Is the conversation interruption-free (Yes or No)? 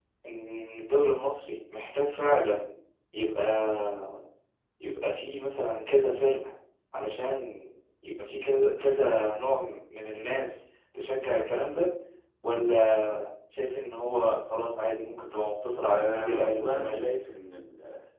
No